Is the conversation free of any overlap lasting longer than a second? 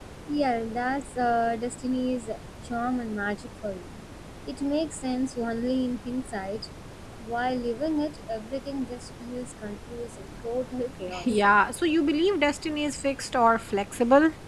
Yes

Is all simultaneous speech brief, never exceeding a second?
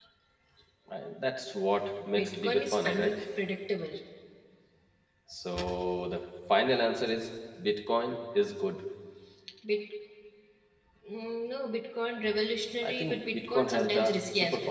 No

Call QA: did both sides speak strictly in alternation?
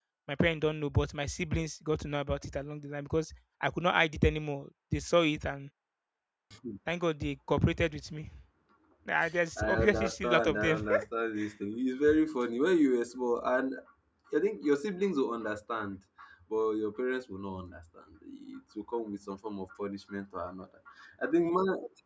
No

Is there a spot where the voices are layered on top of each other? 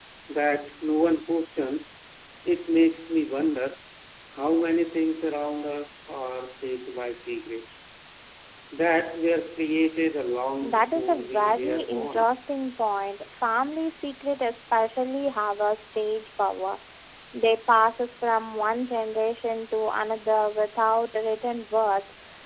Yes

